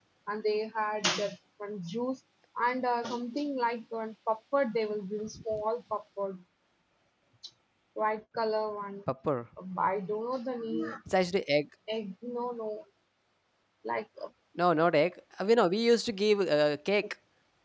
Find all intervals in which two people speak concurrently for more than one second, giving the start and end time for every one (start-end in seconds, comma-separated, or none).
none